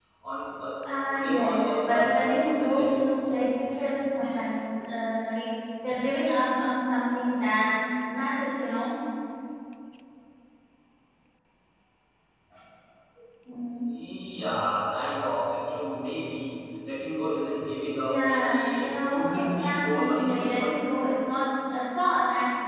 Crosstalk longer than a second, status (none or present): present